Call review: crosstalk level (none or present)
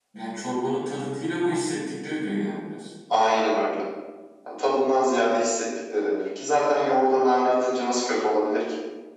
none